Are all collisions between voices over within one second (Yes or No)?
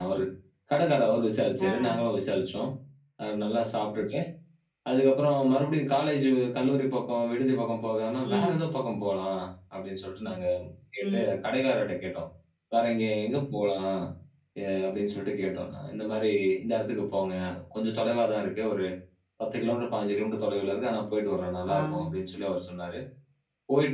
Yes